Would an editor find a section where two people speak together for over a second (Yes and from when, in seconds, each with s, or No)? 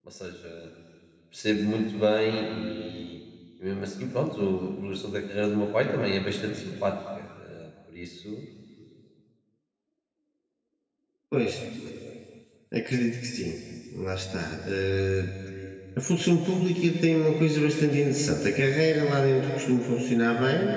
No